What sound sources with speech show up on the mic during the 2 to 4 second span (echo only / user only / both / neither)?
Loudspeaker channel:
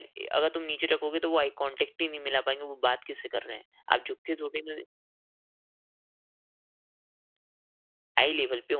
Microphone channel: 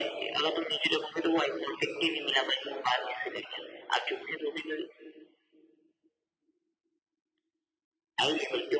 echo only